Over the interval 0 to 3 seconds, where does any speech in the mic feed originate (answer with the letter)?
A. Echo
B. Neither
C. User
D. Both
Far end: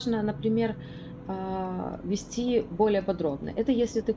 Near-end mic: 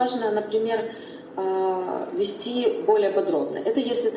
A